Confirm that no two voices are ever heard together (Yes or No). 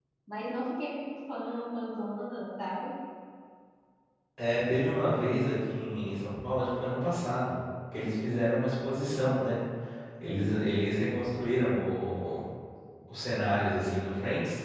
Yes